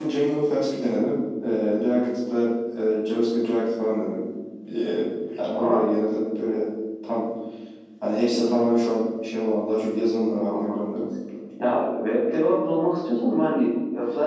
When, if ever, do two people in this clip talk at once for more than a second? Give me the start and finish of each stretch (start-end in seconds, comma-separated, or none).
none